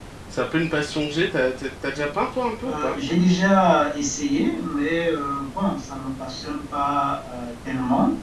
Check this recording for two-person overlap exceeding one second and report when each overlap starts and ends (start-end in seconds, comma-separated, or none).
none